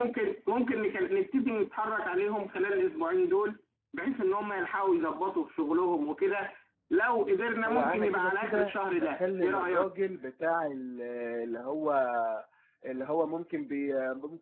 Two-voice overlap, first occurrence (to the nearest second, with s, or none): 8 s